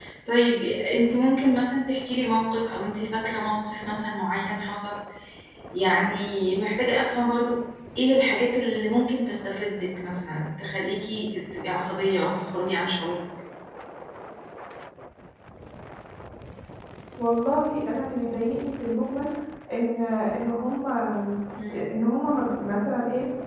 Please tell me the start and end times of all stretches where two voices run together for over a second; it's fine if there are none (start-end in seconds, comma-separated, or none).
none